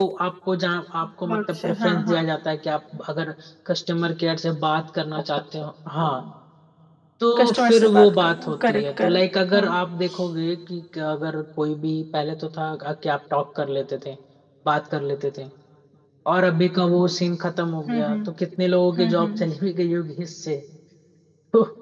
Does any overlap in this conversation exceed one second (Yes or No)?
Yes